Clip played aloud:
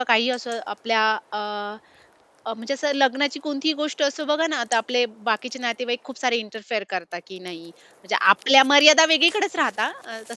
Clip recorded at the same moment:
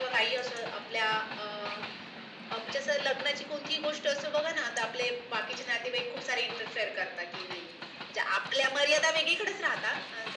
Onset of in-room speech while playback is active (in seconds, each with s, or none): none